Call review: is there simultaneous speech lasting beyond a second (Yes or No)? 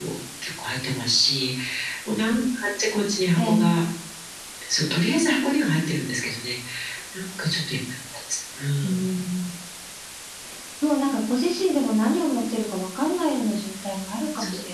No